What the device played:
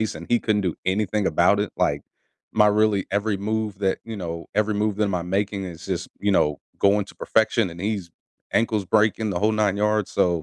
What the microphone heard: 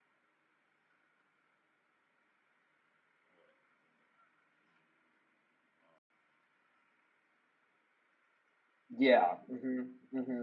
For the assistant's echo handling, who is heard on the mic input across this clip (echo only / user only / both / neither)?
user only